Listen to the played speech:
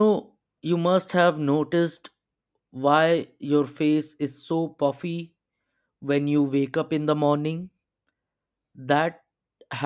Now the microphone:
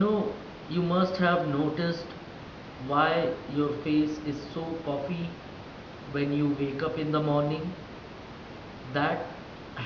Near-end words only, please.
none

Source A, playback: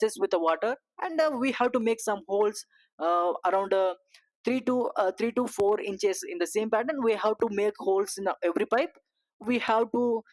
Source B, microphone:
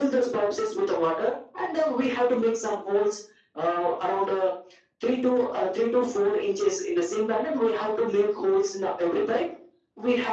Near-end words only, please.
none

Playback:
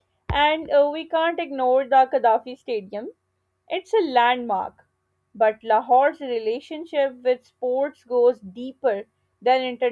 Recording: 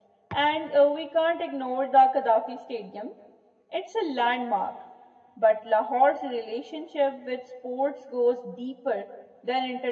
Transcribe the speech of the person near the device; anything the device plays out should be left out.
none

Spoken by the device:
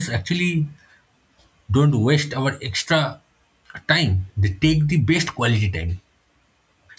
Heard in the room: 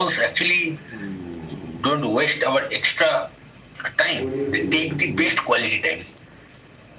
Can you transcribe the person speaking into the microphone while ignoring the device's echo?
What do you think so?

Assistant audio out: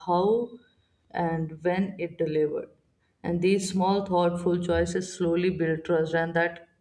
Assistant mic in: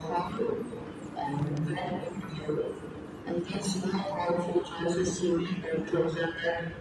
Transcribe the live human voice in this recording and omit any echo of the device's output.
Mm,

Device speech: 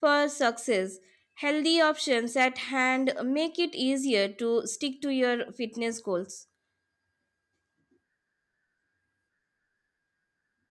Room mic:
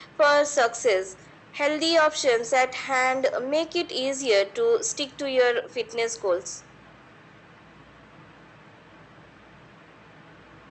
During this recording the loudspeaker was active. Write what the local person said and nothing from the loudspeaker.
none

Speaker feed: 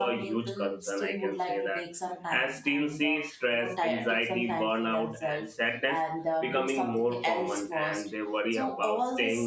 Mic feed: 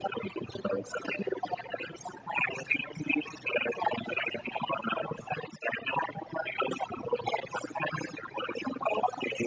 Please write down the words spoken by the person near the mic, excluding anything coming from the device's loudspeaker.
none

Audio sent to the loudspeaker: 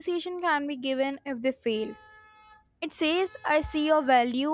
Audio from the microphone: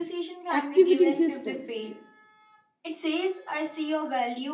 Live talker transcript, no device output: activating system,

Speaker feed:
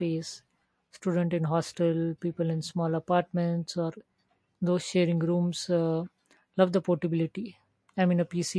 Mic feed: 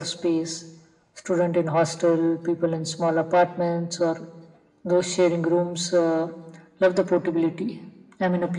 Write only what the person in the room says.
none

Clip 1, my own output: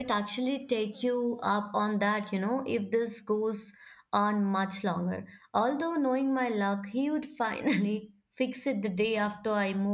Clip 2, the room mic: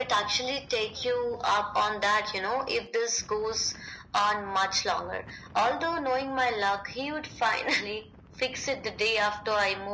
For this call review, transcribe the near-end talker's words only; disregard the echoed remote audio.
none

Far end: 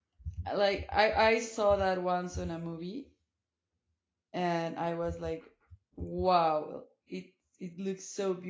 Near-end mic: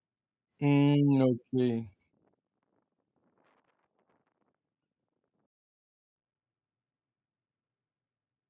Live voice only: Mm, okay.

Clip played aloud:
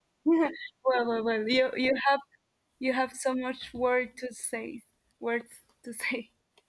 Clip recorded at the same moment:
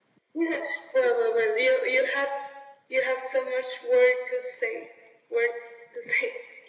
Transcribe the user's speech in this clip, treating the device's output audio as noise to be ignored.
none

